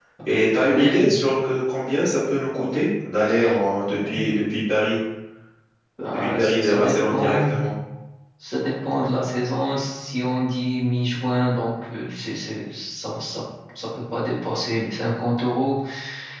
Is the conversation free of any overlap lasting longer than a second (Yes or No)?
No